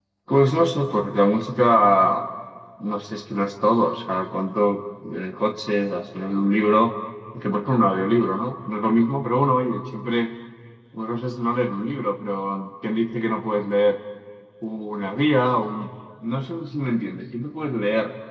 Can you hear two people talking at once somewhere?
No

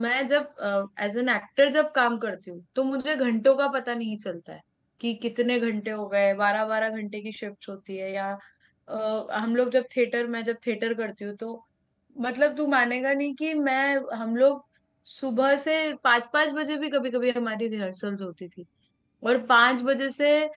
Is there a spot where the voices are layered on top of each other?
No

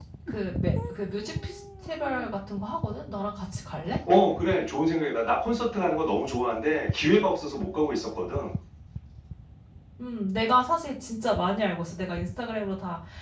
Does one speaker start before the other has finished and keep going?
No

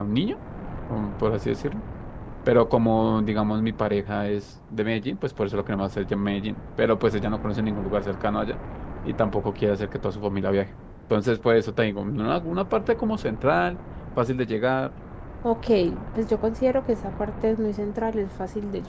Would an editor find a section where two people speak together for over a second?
No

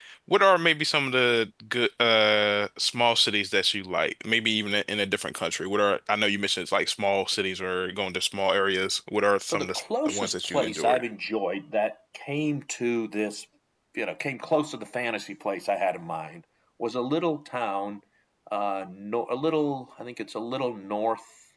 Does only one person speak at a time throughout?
No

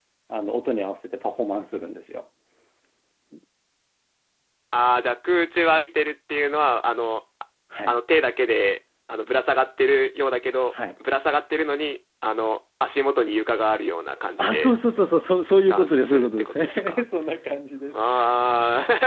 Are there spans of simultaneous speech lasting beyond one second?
Yes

